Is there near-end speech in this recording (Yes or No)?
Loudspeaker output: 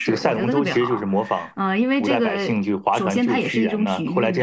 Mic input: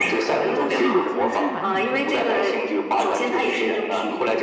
Yes